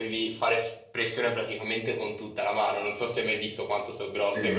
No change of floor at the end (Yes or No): No